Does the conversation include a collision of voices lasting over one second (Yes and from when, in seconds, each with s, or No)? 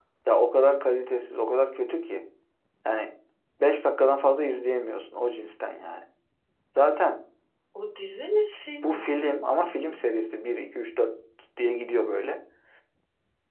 No